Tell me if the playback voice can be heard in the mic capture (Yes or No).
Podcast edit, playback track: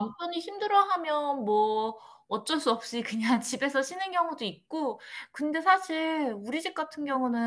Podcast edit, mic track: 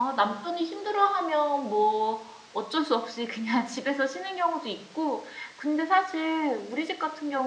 Yes